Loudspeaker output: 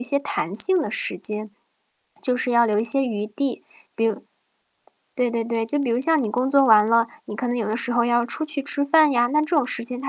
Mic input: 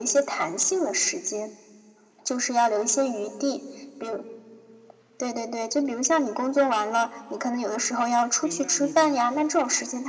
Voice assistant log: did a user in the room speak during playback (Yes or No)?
Yes